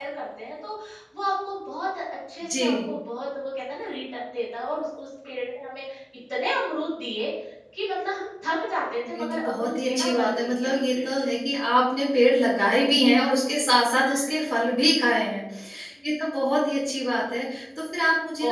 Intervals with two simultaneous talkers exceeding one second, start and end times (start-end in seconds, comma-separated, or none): 9.2-11.1